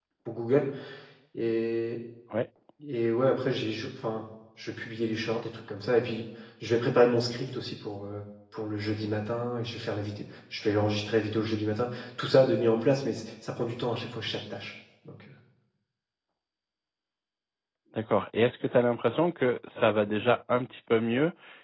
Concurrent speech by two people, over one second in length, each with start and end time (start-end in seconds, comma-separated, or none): none